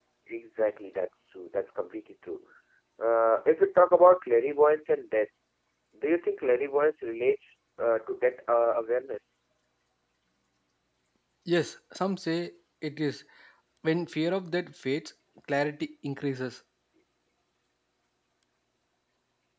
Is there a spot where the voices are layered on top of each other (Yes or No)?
No